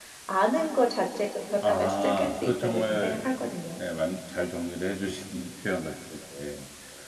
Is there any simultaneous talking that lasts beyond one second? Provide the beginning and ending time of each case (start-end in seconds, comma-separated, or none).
1.6-3.5